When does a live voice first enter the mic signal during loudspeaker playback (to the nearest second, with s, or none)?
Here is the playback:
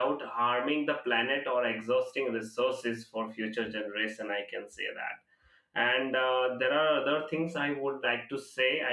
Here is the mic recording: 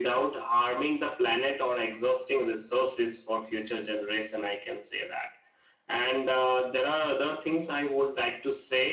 none